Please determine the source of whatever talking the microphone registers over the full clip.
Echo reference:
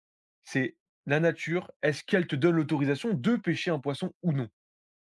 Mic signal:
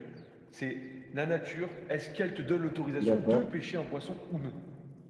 both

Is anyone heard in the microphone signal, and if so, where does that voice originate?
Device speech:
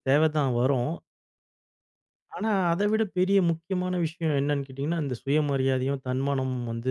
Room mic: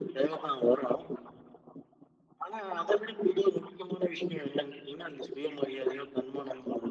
echo only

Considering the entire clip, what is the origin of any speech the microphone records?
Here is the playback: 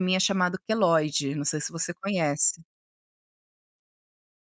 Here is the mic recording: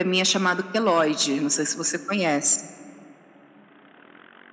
echo only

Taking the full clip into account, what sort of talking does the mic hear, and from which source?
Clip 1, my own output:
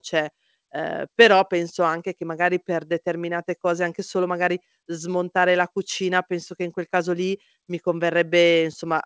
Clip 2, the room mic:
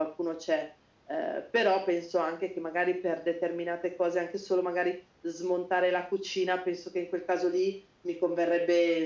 echo only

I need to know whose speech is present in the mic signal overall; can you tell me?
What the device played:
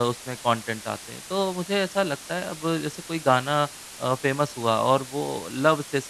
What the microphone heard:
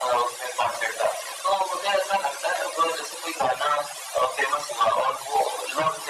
echo only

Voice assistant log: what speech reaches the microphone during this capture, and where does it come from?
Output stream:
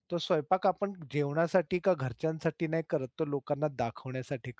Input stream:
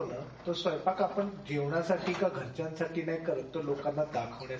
echo only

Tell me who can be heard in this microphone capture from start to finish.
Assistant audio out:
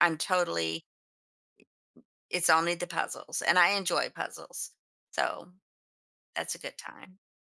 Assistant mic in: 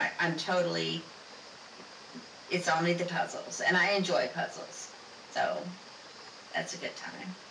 echo only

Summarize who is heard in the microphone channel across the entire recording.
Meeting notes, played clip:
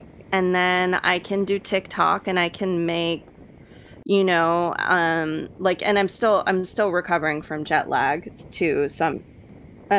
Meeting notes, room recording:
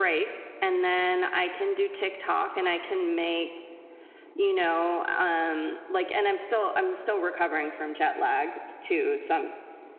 echo only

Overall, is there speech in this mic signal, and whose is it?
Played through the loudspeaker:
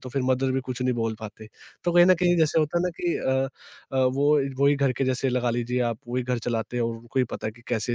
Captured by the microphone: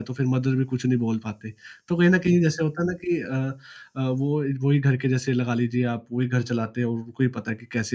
echo only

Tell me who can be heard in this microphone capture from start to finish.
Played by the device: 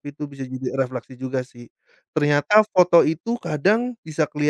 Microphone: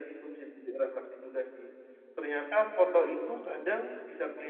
echo only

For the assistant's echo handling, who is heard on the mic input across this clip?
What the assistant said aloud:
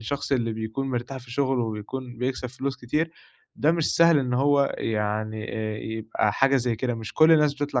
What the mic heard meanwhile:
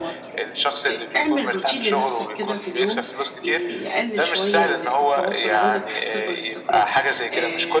both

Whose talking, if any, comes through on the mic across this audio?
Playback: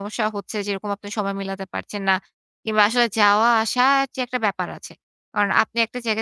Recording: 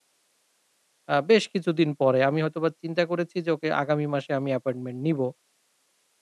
user only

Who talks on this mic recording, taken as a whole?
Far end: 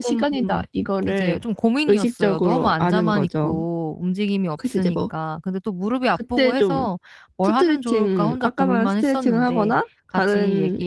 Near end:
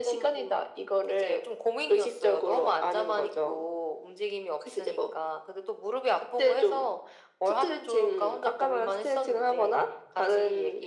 echo only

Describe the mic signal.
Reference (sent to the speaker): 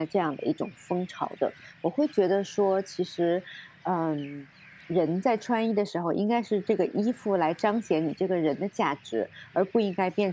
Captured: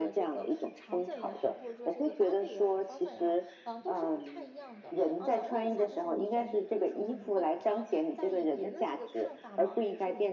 both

